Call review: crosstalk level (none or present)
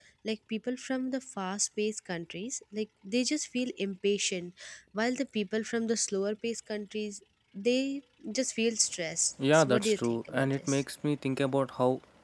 present